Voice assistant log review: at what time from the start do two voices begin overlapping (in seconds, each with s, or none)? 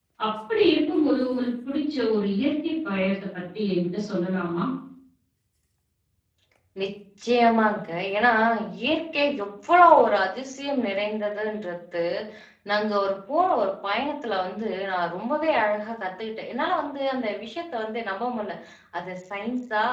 none